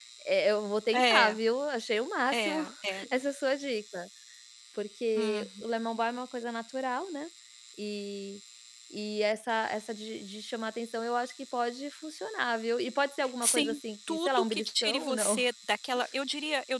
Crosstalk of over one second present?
Yes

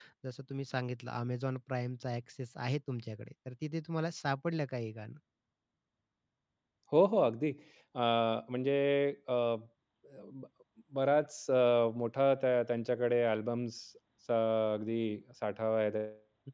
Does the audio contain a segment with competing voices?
No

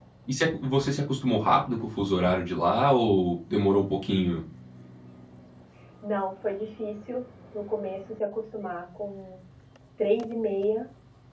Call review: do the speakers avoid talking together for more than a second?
Yes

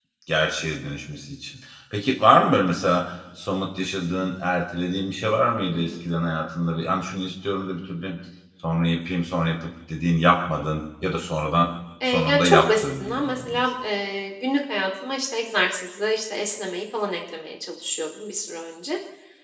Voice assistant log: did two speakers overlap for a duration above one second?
Yes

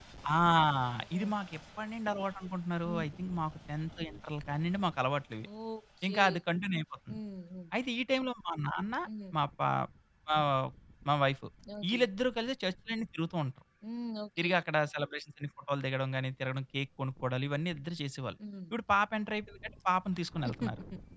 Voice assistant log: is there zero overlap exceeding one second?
Yes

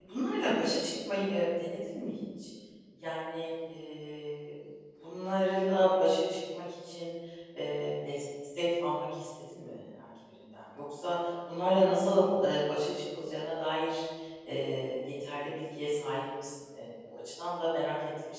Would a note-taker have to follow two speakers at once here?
No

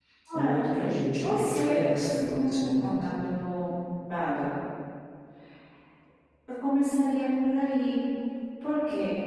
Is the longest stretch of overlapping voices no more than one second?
No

